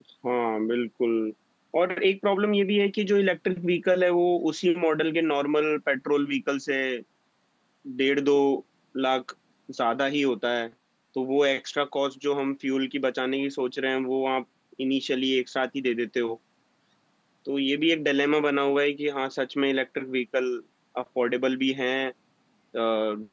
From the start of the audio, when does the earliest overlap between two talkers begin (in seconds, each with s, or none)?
none